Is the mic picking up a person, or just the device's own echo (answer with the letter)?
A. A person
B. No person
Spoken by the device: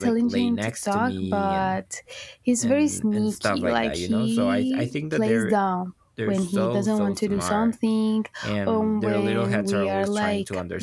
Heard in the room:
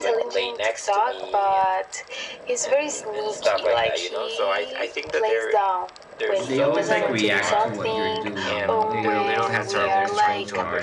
A